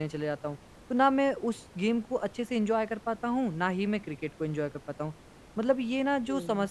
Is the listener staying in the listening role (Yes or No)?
Yes